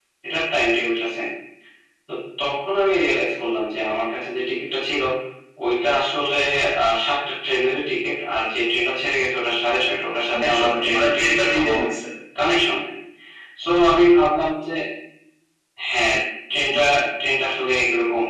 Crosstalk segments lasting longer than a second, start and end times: 10.3-11.7

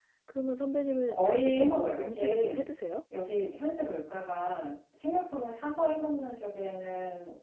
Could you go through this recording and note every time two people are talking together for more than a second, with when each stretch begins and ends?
1.1-2.6

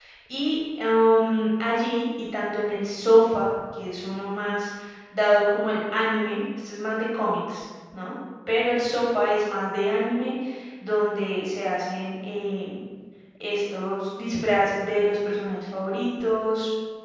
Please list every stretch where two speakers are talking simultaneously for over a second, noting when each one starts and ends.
none

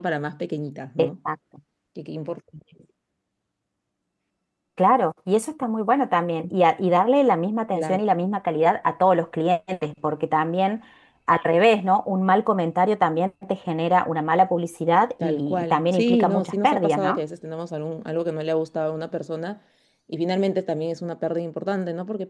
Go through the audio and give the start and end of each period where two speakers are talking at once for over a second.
15.2-17.2

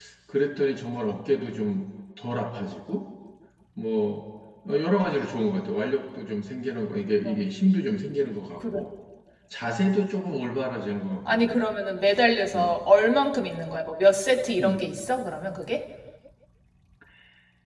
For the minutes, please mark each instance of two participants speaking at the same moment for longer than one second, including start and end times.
none

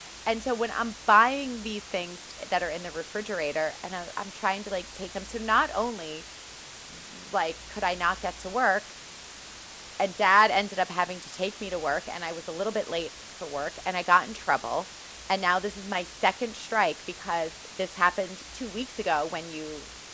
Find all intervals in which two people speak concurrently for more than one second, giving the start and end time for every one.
none

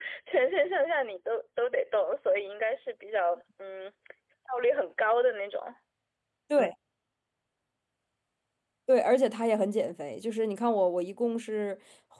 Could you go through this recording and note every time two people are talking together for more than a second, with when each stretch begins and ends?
none

